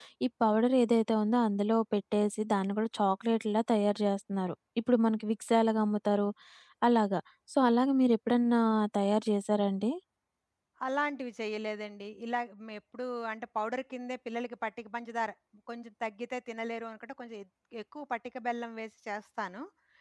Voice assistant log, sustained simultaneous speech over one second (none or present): none